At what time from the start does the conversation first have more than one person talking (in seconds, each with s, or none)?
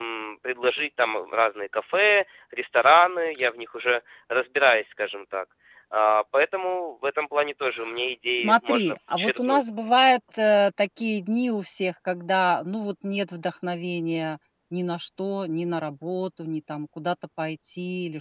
8.3 s